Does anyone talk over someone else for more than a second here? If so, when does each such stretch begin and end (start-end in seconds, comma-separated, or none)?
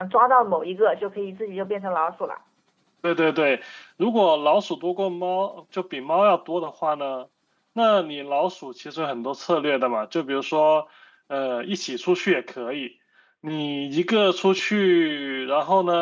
none